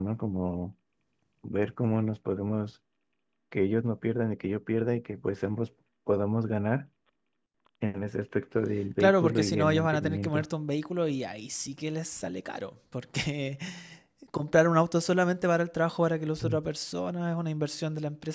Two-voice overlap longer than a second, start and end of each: 9.0-10.4

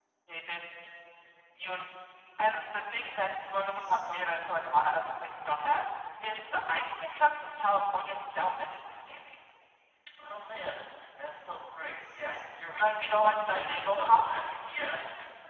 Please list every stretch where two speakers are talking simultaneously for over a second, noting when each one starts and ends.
12.8-14.4

